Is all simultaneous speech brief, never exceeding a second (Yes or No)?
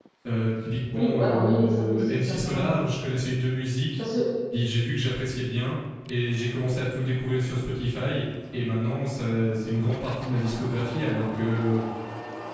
No